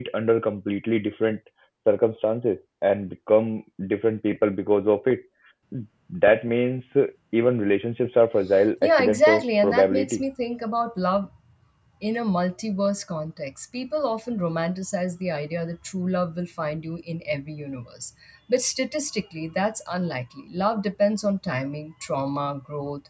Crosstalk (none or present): present